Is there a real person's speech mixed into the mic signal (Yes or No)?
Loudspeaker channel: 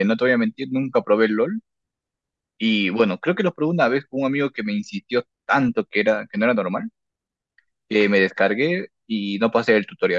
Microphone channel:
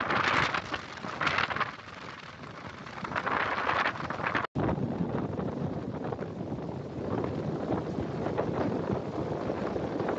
No